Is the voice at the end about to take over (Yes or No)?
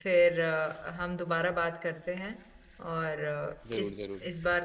No